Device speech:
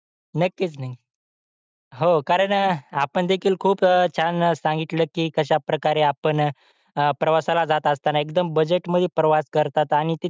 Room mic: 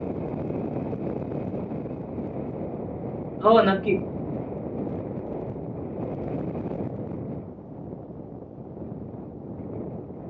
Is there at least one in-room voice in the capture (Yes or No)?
Yes